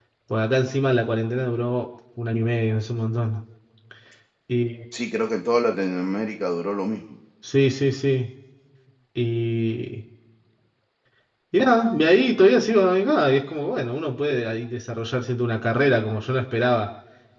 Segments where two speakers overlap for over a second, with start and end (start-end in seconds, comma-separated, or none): none